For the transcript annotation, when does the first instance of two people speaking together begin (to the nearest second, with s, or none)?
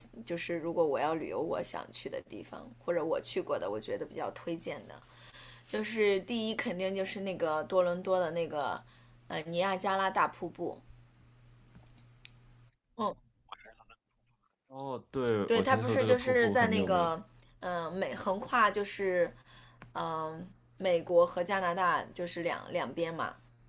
15 s